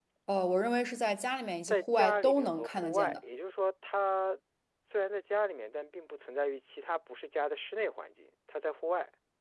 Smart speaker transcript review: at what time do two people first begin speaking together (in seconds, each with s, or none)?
1.7 s